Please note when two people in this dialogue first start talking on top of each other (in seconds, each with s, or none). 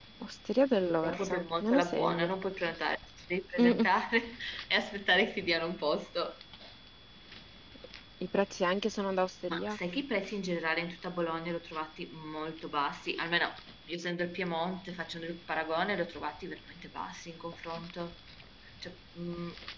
1.0 s